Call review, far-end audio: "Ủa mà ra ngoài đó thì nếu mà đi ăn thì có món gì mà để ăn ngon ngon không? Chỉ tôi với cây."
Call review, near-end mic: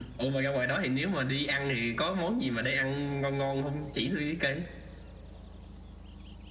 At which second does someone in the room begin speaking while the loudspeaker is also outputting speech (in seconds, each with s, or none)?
none